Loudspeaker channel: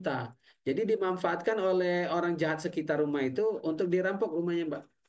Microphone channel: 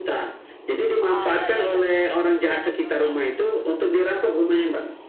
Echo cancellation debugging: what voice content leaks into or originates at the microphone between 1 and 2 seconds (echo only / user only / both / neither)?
both